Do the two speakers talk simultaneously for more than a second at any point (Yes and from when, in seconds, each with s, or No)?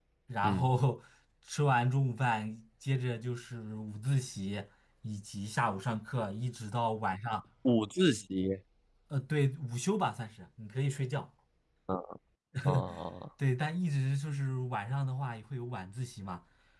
No